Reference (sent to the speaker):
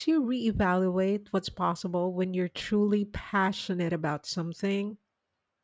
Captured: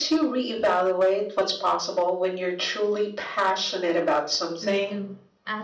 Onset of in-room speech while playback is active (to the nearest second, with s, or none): 5 s